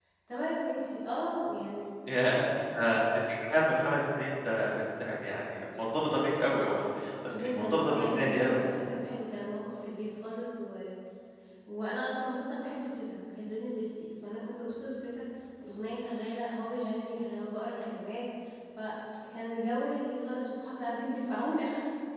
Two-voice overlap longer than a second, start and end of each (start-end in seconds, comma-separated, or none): 7.3-8.6